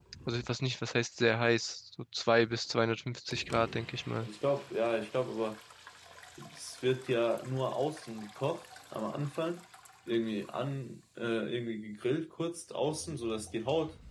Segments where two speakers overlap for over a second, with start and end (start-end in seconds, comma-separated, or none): none